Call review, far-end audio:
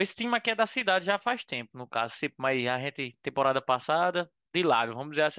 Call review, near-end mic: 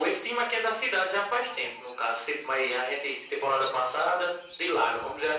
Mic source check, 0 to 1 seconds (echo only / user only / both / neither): echo only